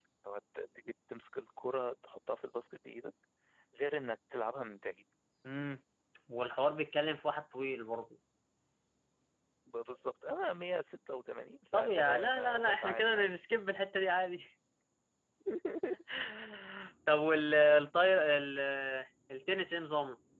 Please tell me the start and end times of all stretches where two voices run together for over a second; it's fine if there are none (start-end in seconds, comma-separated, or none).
11.7-13.3